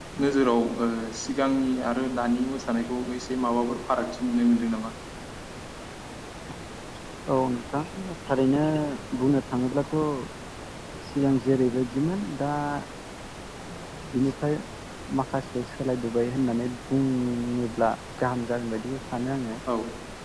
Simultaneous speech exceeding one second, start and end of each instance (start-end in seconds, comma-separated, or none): none